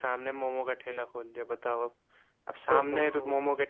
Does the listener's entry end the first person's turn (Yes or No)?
No